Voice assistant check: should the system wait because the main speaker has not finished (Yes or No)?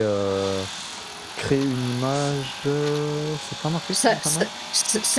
No